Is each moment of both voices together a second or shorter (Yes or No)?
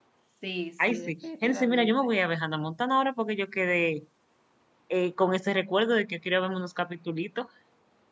No